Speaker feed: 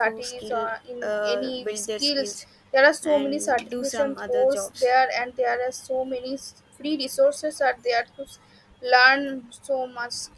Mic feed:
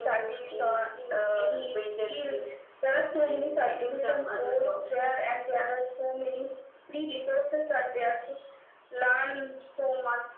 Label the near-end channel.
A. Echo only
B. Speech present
A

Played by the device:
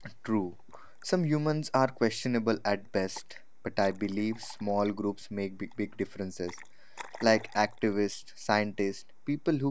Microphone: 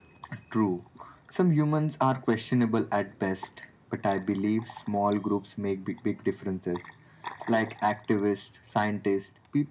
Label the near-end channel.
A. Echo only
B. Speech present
A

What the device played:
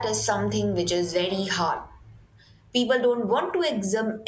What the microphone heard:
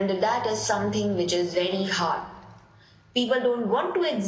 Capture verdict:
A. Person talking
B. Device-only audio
B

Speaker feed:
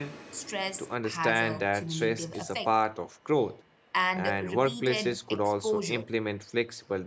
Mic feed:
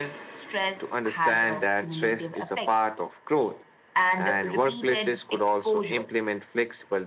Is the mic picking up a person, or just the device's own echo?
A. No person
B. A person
A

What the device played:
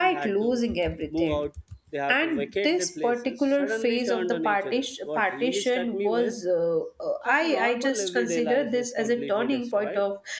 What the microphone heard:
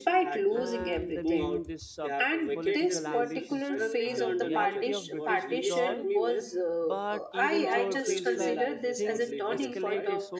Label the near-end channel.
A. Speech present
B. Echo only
A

